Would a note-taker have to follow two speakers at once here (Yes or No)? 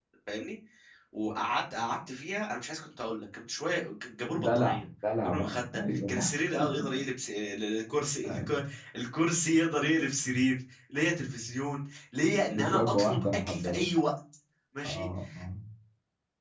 Yes